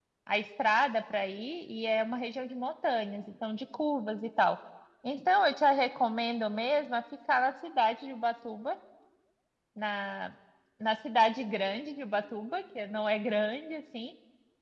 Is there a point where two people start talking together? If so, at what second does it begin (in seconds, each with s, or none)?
none